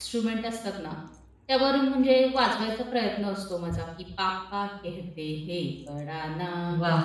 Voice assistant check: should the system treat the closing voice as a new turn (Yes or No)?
No